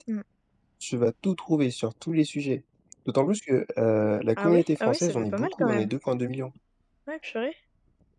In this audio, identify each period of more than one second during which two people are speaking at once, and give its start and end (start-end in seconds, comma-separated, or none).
4.4-5.9